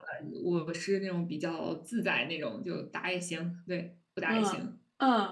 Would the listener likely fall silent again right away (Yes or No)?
No